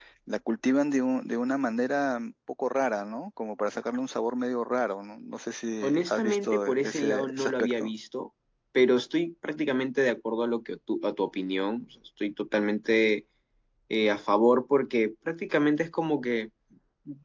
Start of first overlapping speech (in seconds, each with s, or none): 5.8 s